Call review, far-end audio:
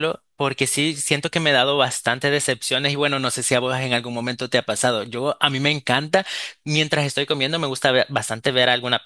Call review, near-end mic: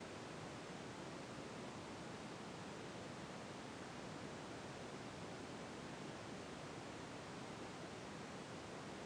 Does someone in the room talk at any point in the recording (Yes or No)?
No